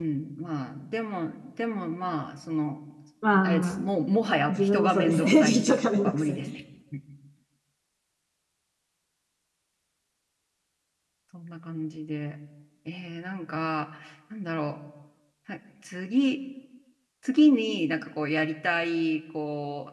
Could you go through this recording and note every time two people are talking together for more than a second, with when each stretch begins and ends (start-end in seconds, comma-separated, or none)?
4.5-6.4